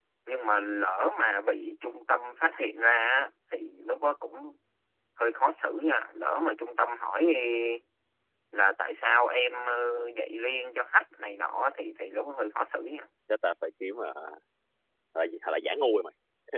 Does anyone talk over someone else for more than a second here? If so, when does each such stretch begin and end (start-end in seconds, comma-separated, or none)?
none